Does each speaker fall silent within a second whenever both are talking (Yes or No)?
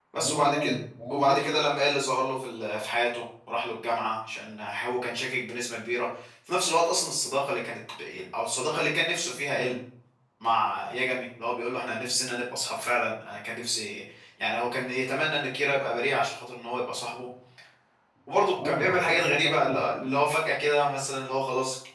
No